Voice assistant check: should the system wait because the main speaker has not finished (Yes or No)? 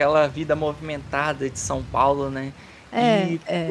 Yes